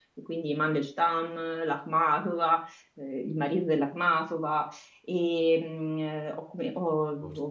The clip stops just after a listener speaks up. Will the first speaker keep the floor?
Yes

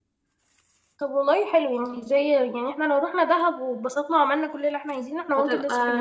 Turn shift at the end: Yes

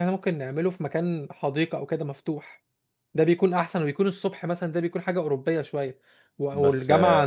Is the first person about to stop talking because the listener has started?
No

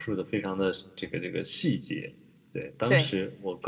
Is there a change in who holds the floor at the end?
No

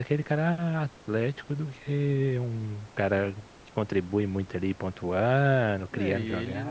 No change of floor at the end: No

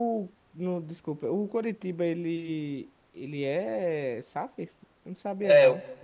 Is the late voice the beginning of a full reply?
Yes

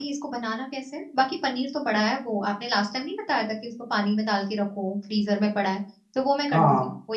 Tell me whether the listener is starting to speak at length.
Yes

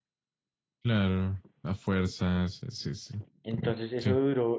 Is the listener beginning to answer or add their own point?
Yes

